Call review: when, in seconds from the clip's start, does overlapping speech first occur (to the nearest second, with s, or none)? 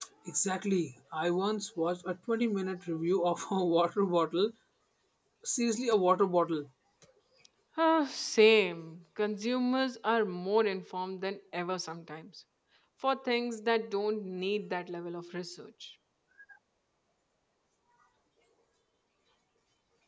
none